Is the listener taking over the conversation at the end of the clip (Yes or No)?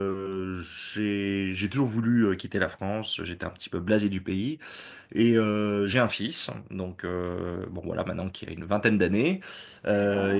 No